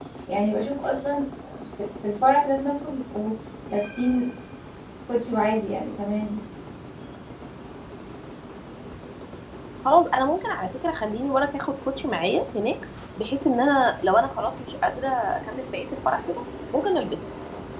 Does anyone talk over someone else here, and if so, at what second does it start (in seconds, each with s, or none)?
none